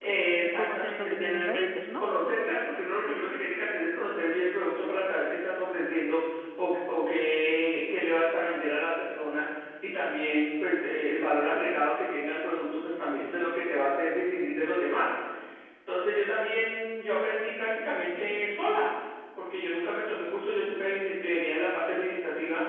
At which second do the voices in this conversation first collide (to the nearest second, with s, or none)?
1 s